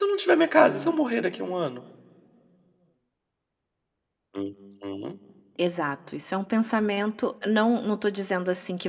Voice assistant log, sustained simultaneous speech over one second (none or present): none